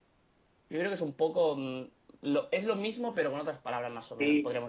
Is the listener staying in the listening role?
No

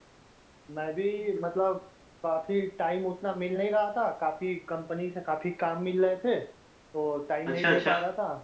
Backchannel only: Yes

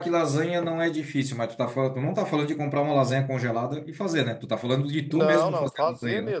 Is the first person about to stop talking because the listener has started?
Yes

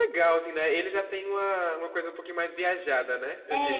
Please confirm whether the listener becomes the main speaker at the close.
Yes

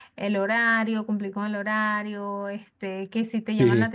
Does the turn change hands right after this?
No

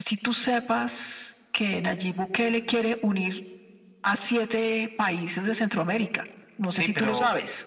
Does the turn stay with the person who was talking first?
No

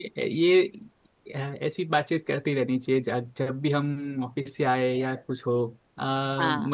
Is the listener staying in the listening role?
Yes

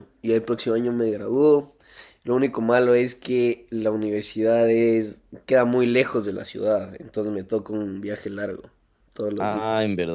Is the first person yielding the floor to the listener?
Yes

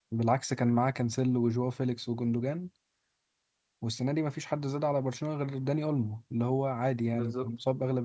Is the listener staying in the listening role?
Yes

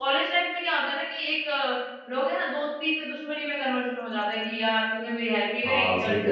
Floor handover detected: Yes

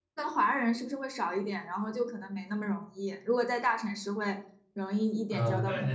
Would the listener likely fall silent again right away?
No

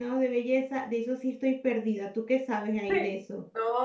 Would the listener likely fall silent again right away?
No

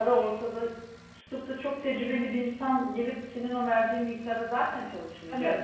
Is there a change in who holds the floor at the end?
Yes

